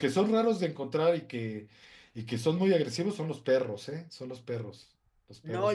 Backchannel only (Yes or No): No